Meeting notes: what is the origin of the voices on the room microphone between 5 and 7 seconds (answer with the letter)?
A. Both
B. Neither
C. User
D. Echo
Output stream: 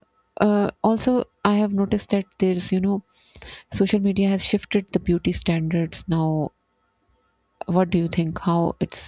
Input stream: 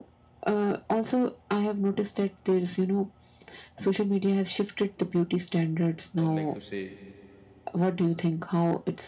A